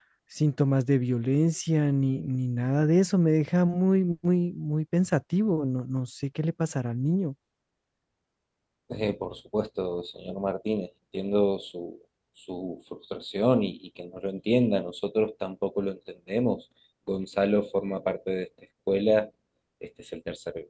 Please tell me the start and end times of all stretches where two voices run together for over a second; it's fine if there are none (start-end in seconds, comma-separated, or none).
none